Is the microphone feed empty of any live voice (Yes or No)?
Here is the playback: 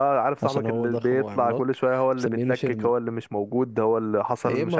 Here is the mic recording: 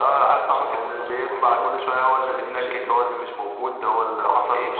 Yes